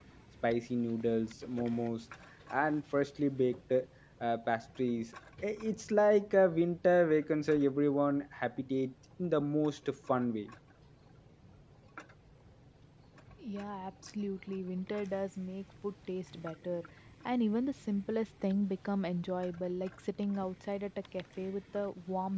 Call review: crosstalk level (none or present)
none